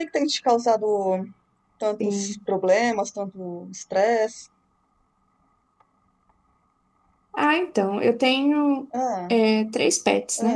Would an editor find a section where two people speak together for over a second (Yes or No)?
No